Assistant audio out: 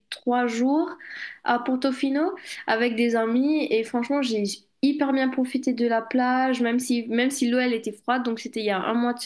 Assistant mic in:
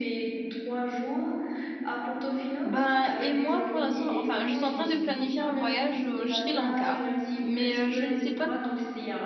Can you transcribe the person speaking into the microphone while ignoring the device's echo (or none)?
Ben, et moi, pour l'instant, enfin, je suis en train de planifier un voyage au Sri Lanka, mais euh, je ne sais pas